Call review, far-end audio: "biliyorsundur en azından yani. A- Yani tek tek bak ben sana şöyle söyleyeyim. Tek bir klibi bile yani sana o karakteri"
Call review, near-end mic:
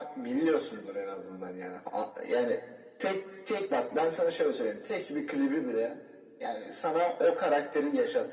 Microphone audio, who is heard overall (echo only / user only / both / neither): echo only